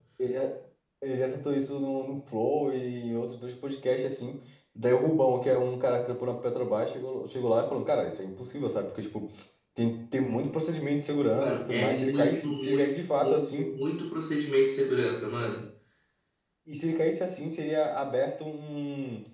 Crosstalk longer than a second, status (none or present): present